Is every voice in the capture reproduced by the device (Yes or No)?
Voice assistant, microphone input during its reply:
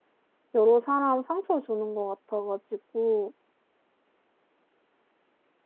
No